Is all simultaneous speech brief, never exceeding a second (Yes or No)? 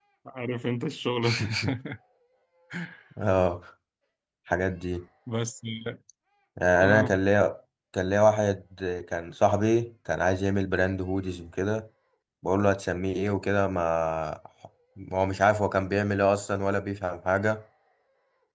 Yes